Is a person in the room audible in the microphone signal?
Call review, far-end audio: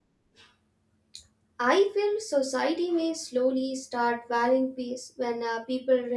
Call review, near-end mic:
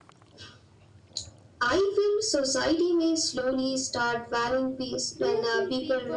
Yes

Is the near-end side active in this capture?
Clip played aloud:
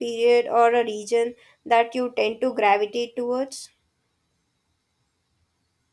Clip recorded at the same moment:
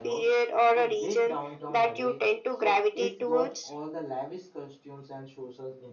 Yes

